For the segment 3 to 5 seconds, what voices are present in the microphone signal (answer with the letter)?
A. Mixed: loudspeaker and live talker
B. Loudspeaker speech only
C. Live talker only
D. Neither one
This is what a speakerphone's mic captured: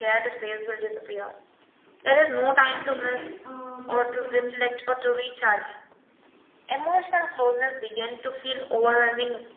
A